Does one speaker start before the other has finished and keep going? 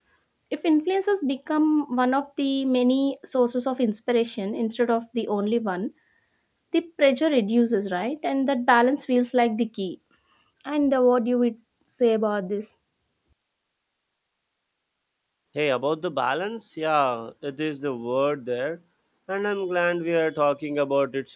No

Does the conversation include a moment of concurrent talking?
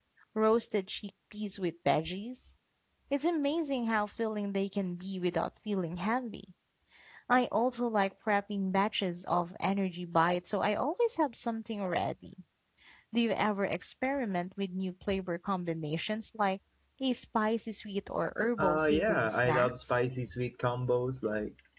Yes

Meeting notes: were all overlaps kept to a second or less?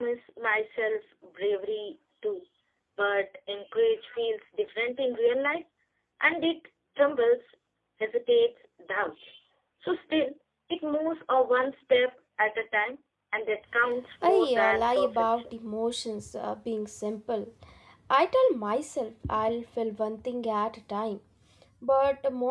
No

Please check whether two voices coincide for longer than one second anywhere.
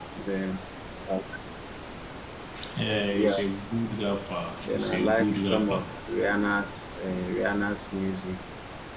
Yes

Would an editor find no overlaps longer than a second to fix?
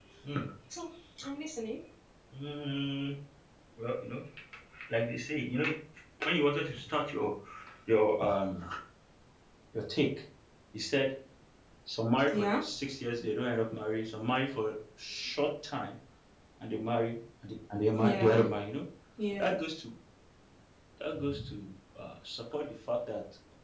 Yes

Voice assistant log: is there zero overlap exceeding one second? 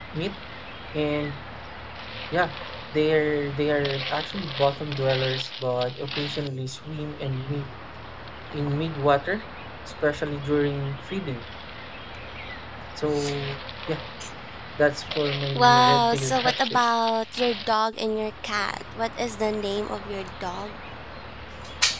No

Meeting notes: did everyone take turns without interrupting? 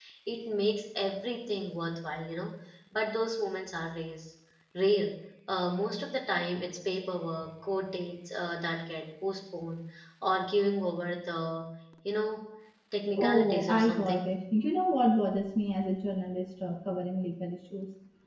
No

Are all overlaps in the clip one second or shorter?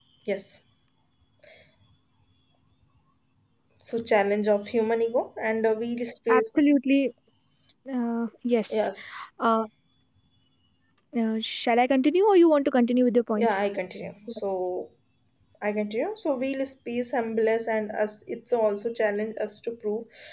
Yes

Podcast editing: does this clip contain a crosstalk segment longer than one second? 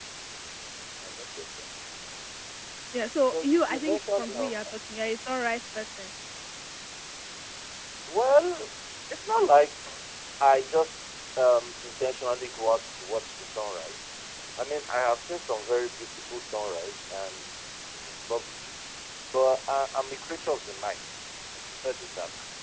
Yes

